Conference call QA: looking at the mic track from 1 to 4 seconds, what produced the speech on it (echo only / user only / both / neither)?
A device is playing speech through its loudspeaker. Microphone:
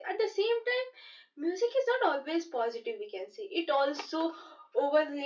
echo only